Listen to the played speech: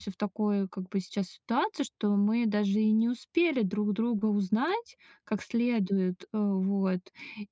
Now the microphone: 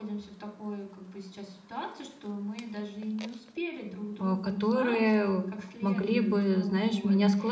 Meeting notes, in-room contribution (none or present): present